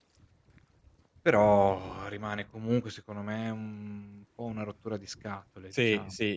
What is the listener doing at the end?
taking over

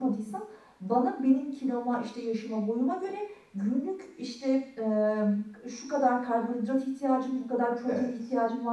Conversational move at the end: listening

